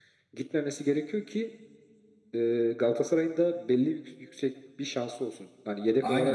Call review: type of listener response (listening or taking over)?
taking over